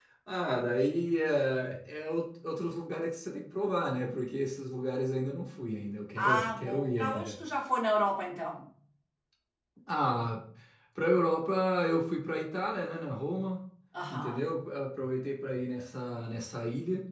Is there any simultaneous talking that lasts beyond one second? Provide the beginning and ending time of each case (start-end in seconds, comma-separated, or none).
6.2-7.4